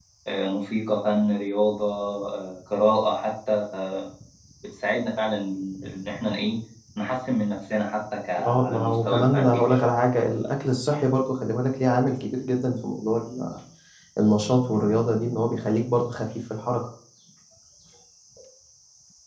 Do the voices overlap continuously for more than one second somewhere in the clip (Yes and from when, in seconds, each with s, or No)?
Yes, from 8.4 s